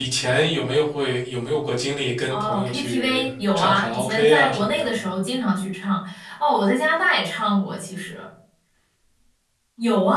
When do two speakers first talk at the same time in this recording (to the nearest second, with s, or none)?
2 s